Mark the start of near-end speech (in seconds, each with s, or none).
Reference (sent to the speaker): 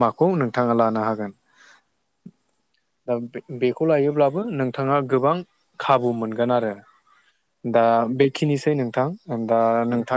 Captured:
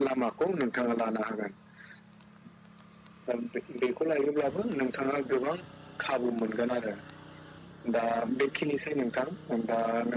none